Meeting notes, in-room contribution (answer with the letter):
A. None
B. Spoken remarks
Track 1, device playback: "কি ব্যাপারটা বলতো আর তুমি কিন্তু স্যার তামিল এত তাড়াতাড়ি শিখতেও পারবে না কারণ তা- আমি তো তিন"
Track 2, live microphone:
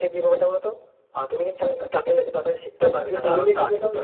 B